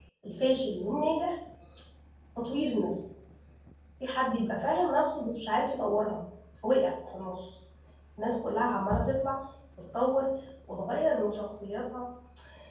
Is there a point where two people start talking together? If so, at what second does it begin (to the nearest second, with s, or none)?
none